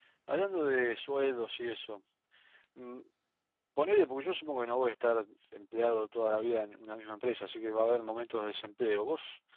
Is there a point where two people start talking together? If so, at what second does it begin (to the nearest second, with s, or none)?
none